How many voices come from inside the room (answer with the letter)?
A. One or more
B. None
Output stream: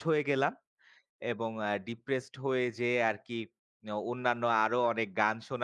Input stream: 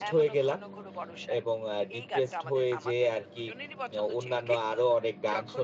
A